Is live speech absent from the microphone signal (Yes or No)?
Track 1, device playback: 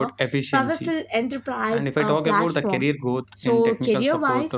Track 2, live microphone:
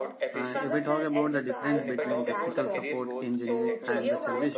No